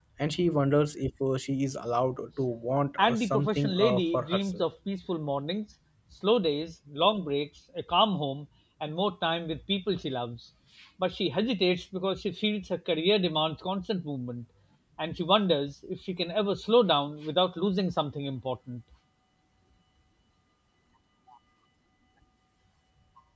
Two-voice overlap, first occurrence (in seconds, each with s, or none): 3.0 s